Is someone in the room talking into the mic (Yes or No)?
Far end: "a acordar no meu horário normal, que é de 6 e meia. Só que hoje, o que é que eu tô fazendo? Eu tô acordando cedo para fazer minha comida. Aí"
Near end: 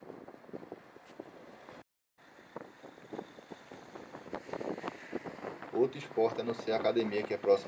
Yes